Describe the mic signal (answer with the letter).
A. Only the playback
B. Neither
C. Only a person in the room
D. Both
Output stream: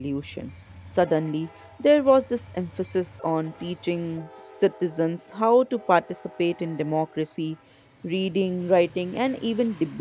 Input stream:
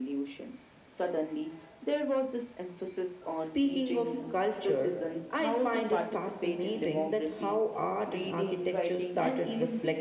D